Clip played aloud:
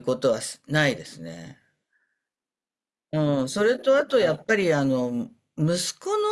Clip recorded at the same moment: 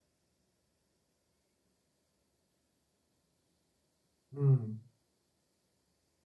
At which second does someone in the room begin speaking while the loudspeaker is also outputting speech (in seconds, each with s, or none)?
4.3 s